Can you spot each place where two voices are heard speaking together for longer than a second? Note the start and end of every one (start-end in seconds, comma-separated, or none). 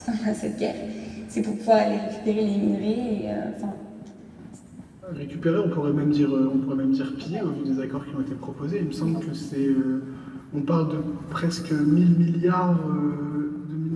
none